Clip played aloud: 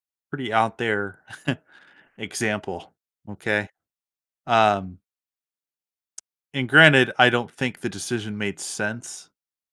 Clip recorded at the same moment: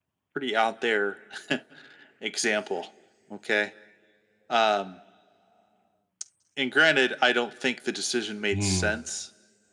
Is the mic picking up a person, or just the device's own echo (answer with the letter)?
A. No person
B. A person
B